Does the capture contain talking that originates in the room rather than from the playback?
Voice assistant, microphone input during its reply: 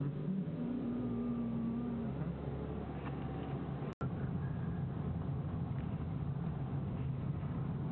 No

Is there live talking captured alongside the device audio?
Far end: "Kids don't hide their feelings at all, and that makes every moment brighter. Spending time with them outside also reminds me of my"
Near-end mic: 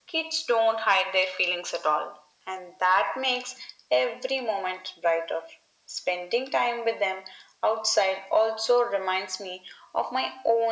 No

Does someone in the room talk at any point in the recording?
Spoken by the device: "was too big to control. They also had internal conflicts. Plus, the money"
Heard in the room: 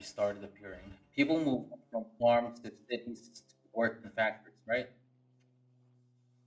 Yes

